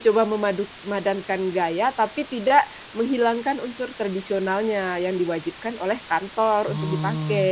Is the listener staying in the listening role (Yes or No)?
No